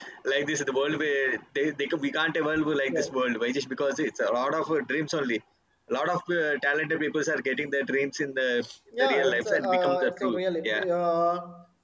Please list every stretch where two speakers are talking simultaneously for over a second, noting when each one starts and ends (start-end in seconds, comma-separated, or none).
9.0-10.8